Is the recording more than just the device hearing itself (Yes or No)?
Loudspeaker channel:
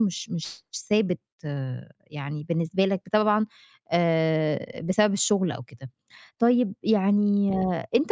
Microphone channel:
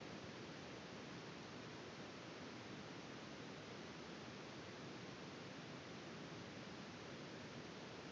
No